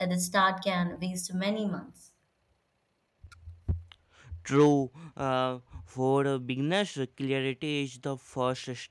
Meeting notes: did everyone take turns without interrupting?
Yes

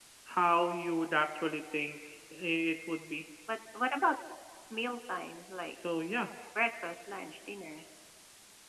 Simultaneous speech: No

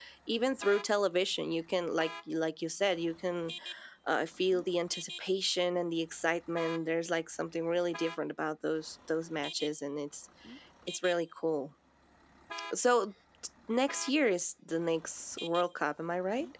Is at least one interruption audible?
No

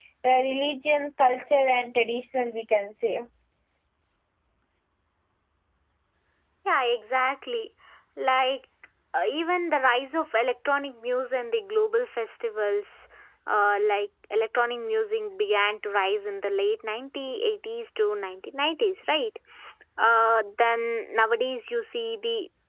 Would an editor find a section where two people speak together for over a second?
No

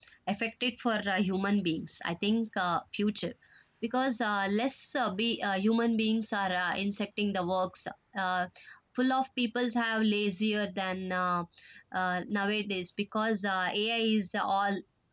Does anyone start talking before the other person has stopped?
No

